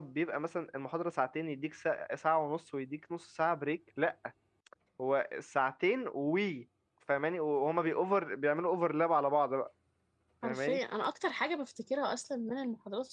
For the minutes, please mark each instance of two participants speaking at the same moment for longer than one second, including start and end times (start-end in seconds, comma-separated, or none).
none